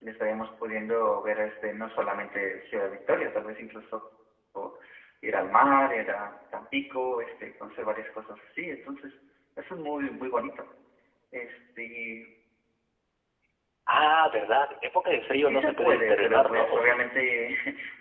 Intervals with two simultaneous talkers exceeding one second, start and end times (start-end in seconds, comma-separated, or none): 15.4-17.0